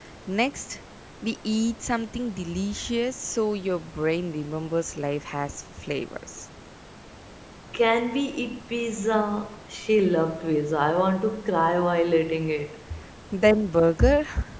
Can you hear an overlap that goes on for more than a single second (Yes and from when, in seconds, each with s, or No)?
No